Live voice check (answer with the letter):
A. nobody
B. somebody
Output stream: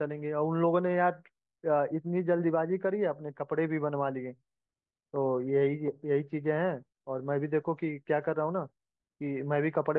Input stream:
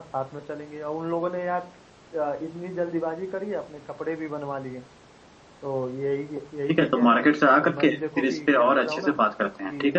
B